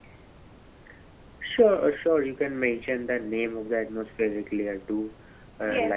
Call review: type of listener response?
taking over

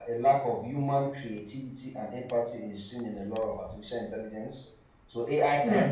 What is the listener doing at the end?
listening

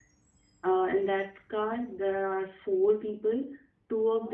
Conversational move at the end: listening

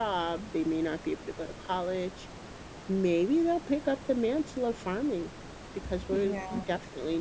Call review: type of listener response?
listening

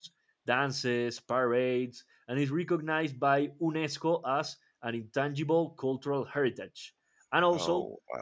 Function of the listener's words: listening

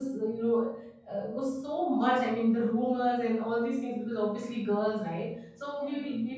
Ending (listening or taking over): listening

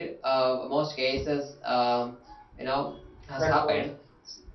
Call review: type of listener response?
listening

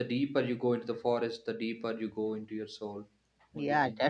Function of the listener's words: taking over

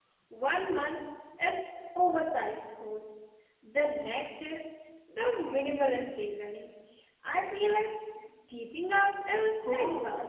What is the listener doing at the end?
taking over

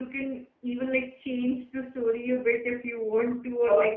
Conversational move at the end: listening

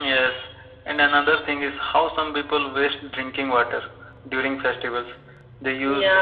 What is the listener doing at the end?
listening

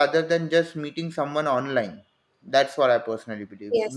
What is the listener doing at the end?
taking over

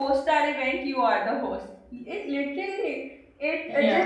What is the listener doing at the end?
listening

